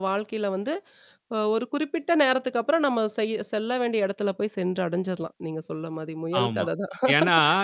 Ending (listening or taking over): taking over